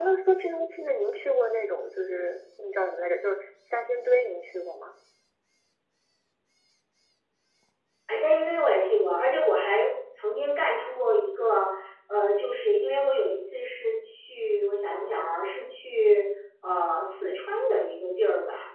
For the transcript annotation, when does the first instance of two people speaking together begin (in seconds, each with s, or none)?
none